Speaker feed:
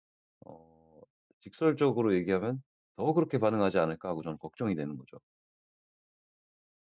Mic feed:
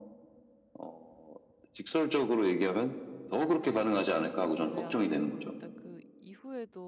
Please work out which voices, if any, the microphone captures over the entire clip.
both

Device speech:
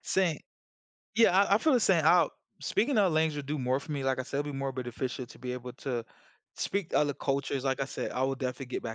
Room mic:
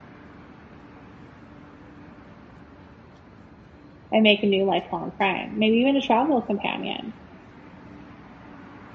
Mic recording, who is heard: user only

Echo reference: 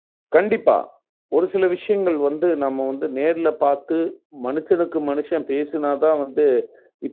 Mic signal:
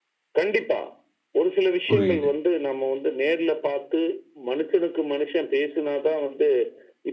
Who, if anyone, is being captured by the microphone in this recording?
both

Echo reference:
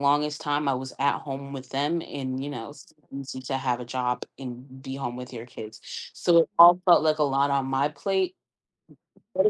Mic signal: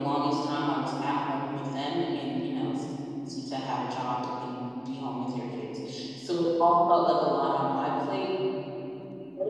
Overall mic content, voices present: echo only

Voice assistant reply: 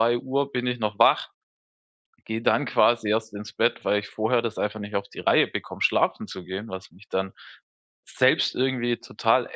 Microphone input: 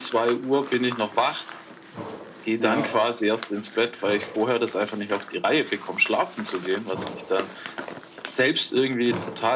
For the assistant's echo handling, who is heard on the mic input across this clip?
both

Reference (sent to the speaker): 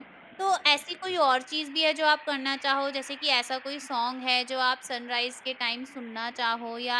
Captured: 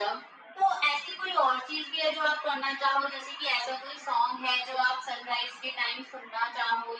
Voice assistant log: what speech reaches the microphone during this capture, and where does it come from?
echo only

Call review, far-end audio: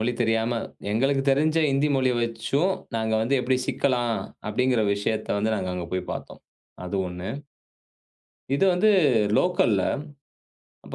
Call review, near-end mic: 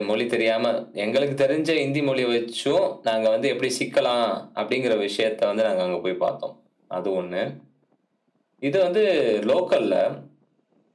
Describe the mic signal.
echo only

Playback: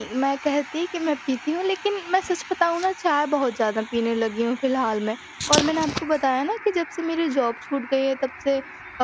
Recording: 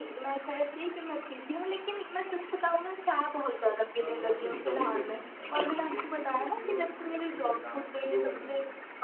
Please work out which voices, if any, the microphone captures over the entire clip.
both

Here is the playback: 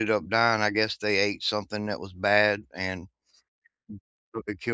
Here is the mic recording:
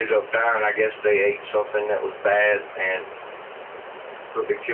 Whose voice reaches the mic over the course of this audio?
echo only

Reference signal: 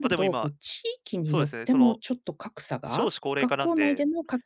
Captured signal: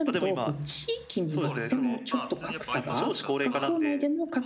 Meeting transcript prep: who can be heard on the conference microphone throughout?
both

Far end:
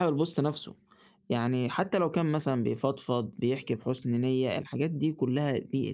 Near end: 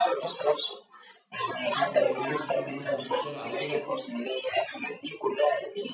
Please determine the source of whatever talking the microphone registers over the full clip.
both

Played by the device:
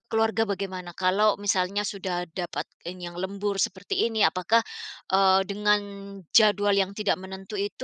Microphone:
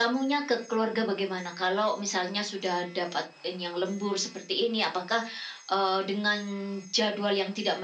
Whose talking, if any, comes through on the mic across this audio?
echo only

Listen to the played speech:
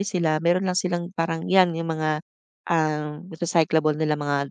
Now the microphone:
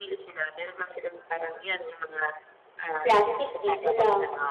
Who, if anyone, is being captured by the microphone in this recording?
both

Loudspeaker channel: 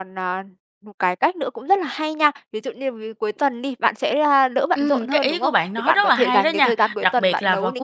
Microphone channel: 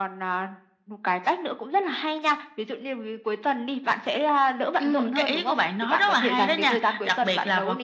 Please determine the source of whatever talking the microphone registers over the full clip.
echo only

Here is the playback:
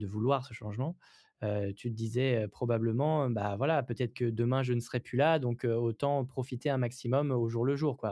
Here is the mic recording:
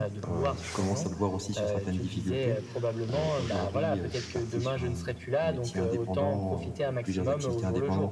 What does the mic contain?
both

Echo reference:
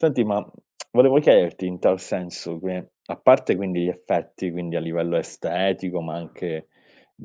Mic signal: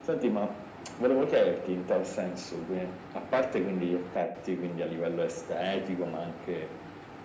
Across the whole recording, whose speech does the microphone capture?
echo only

